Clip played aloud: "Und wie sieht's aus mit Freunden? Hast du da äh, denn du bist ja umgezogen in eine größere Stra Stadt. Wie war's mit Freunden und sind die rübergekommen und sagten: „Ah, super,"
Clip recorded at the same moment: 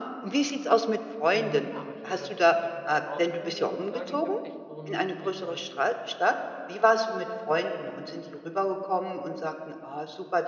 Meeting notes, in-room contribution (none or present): present